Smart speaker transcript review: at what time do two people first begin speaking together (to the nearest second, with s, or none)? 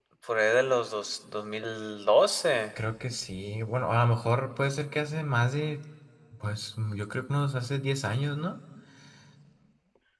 none